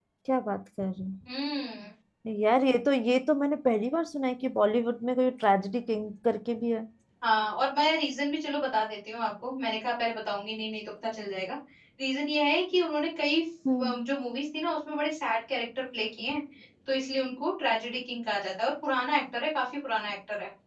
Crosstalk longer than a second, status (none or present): none